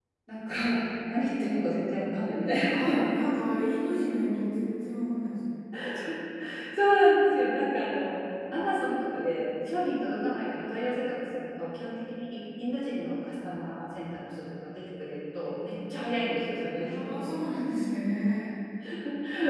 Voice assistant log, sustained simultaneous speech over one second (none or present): none